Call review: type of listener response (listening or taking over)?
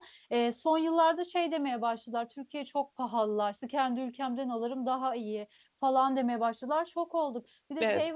listening